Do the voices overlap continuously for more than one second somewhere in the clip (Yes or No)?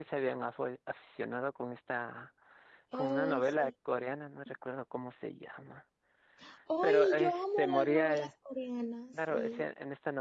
Yes